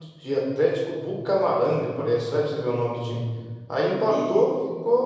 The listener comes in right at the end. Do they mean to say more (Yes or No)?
No